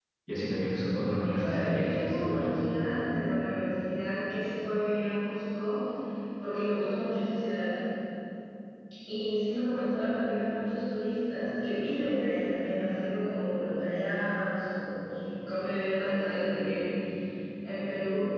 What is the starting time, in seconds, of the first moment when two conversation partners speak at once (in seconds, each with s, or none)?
1.2 s